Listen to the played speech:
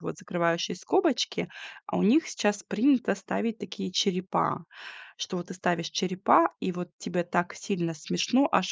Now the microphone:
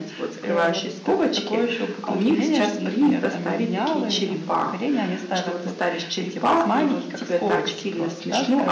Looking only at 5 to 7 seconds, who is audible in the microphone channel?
both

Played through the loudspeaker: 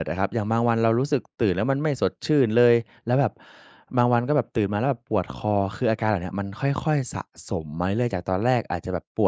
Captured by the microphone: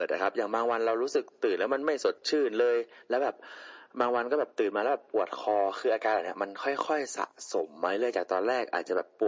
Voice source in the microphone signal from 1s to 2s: echo only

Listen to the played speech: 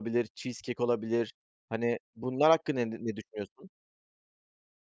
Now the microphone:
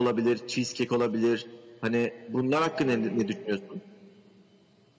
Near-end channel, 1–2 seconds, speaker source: echo only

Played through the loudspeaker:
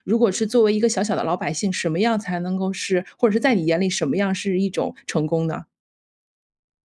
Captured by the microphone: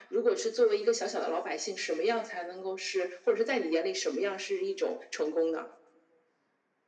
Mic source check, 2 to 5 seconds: echo only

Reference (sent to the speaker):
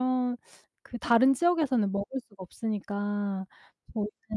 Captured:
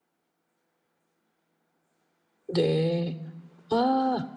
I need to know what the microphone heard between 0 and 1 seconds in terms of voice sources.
neither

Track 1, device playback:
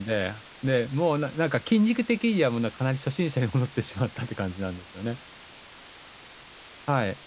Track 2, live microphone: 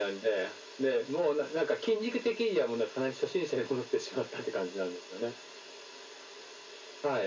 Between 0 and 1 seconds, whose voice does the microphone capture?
echo only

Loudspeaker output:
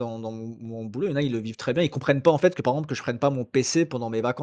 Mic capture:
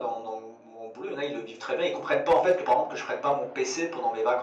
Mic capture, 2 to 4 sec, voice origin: echo only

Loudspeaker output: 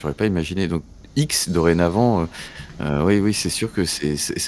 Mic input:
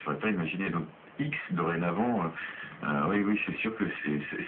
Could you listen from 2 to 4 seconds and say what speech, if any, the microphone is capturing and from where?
echo only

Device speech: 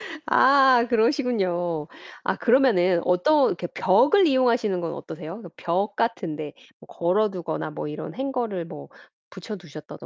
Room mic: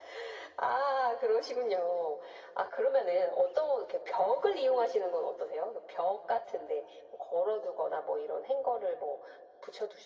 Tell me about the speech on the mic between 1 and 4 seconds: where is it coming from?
echo only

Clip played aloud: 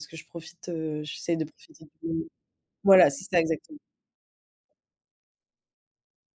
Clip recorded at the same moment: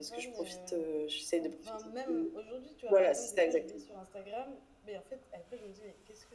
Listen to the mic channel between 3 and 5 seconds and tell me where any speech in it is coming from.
both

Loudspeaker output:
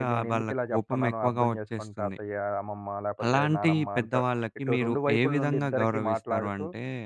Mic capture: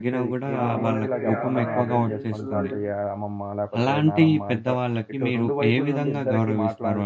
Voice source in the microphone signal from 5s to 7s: echo only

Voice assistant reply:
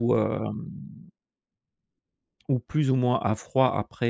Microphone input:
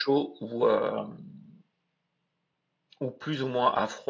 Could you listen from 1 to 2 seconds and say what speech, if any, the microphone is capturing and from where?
echo only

